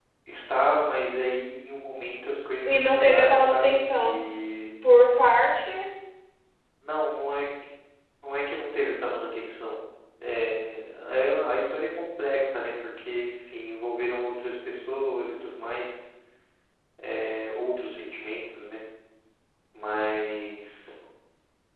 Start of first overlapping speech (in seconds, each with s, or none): 2.6 s